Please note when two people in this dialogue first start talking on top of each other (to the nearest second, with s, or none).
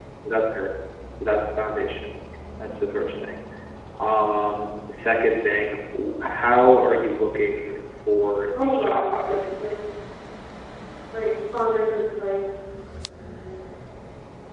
9 s